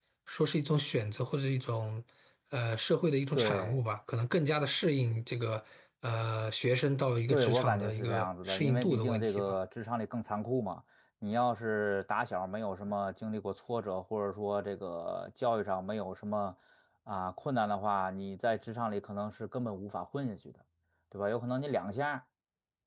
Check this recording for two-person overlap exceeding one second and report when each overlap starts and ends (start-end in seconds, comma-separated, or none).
7.3-9.6